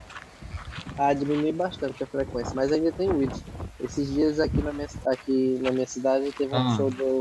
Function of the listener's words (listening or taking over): listening